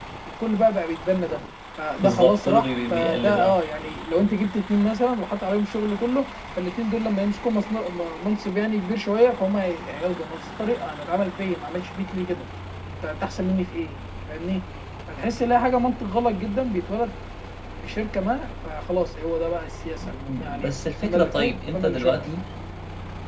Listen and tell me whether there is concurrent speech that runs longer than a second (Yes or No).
Yes